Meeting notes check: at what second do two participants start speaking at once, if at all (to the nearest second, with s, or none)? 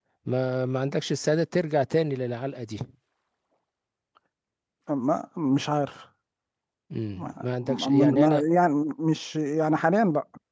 7 s